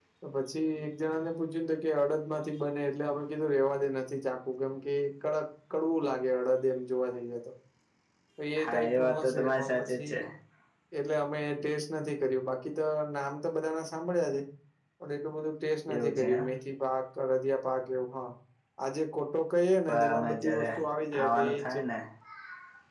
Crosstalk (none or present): present